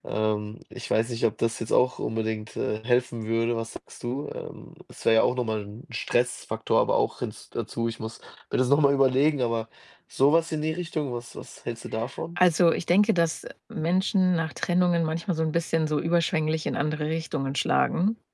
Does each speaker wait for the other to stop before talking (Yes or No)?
Yes